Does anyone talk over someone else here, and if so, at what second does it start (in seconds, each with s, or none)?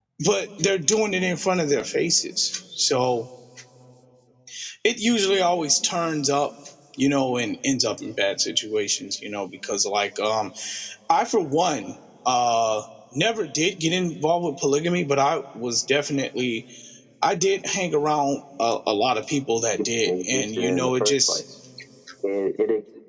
19.7 s